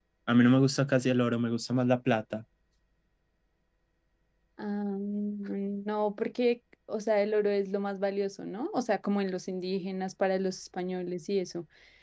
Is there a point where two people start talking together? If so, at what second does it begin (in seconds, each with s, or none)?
none